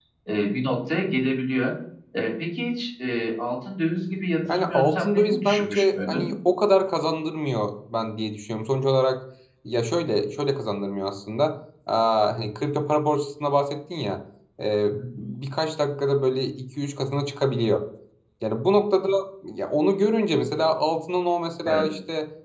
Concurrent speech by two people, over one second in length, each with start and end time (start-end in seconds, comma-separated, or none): 4.5-6.3